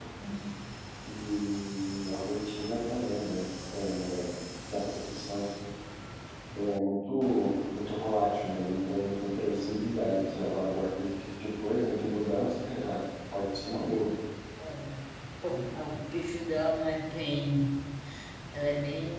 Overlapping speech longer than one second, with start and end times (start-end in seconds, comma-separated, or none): none